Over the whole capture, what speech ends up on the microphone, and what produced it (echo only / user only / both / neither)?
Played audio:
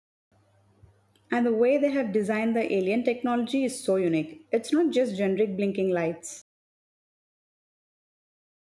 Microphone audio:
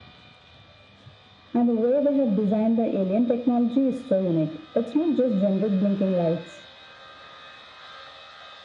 echo only